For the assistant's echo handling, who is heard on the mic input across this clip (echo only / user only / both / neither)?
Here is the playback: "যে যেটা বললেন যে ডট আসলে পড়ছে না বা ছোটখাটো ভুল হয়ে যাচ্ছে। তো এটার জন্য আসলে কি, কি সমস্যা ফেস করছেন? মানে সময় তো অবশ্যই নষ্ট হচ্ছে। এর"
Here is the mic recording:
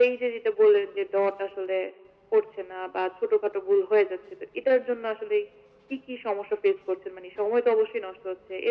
echo only